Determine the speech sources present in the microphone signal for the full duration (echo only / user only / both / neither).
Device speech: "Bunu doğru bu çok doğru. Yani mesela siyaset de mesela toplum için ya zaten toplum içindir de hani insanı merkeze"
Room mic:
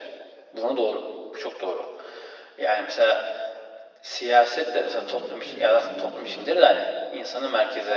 both